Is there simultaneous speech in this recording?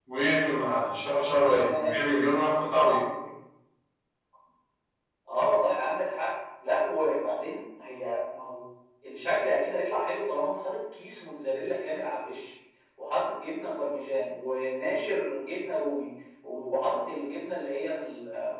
Yes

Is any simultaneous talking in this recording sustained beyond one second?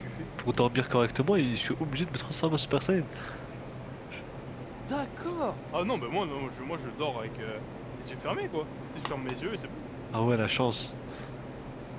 No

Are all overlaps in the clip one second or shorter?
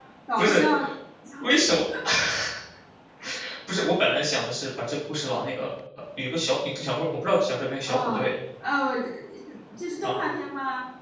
Yes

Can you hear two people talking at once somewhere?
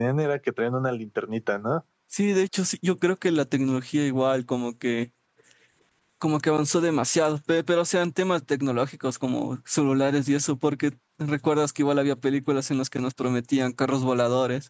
No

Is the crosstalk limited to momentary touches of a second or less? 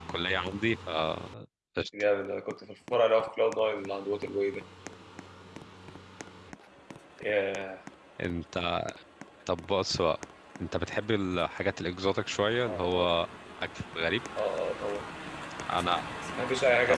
Yes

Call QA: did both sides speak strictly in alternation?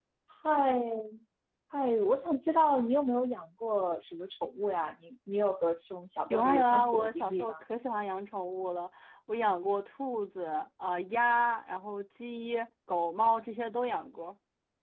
No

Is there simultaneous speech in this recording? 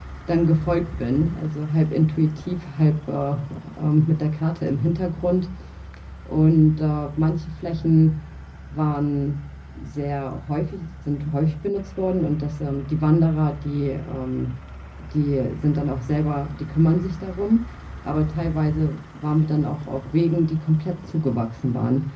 No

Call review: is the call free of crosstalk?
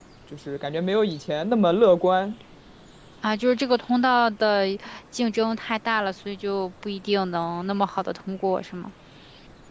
Yes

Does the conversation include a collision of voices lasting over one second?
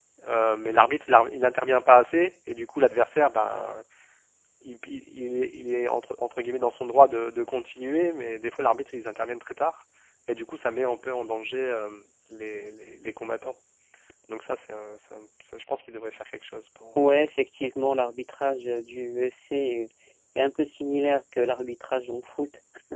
No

